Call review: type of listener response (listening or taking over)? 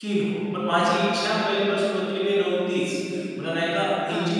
listening